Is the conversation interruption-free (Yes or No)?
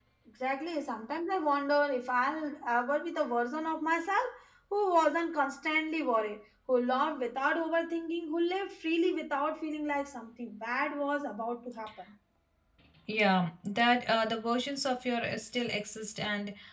Yes